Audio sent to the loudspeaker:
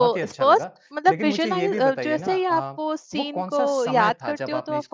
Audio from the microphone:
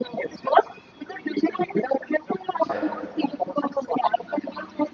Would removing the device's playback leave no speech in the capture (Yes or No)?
No